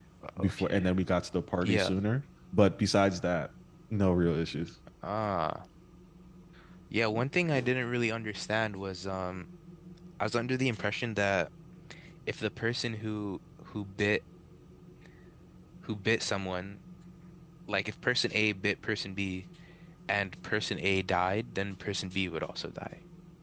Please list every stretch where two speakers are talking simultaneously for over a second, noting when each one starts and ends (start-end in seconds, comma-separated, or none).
none